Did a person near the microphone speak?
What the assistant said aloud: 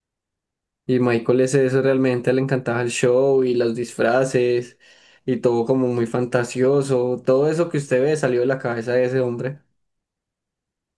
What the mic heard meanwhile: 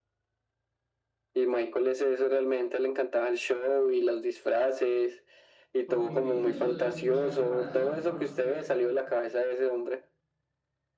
Yes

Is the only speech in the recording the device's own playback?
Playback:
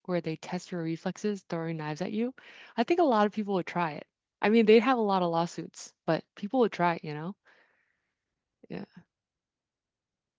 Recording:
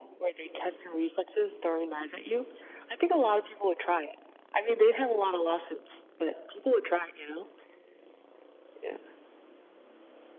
Yes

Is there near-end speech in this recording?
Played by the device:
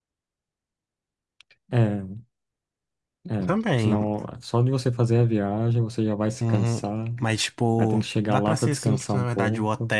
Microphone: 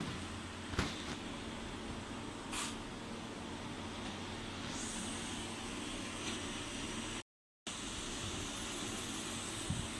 No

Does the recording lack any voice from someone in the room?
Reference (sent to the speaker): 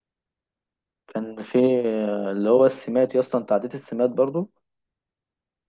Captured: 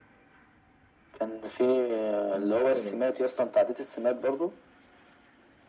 No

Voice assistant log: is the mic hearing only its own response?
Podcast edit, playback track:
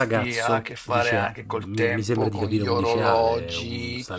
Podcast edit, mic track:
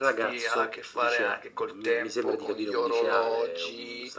Yes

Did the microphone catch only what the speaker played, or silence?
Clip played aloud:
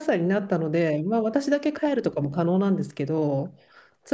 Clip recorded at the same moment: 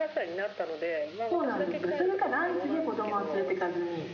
No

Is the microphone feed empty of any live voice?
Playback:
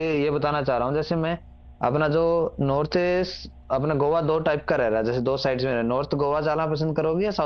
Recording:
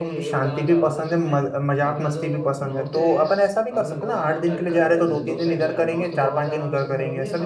No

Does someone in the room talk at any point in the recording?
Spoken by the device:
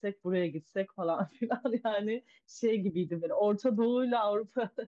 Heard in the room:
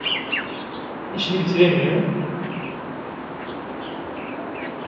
Yes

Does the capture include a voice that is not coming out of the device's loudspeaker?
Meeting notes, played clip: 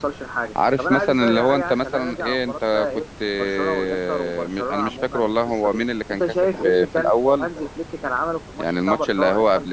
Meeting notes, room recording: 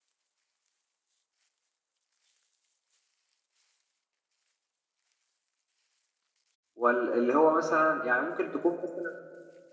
Yes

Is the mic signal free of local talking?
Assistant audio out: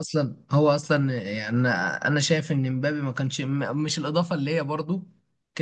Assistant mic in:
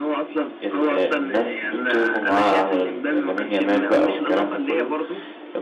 No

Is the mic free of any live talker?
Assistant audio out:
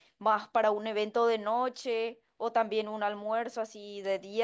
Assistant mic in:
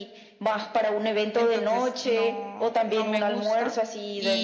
No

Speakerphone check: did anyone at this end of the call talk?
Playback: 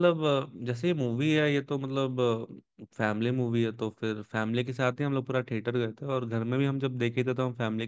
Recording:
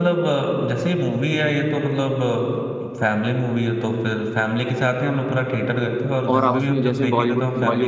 Yes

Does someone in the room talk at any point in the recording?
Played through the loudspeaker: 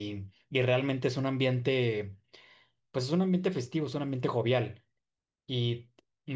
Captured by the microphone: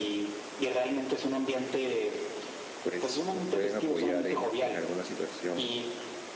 Yes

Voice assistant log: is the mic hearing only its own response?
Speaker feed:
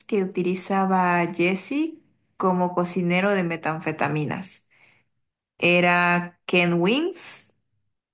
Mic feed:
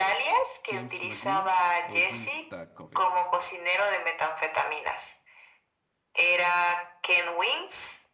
No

